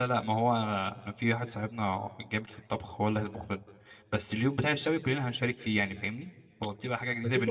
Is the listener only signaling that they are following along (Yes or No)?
No